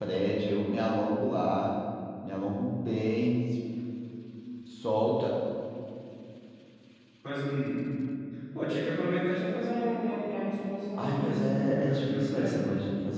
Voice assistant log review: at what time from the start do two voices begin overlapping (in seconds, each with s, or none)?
10.9 s